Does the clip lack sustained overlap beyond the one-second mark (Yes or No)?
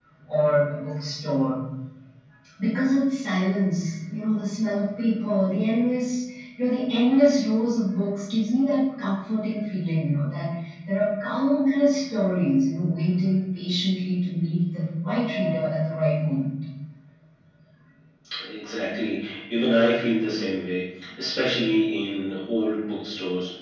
Yes